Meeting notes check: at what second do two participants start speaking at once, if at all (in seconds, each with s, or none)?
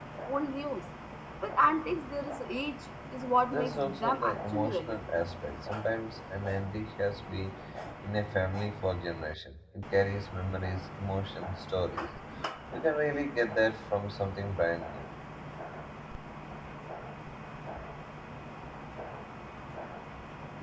3.5 s